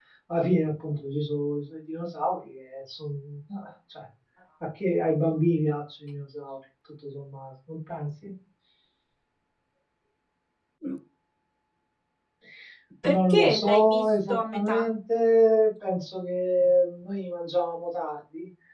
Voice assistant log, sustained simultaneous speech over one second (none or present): present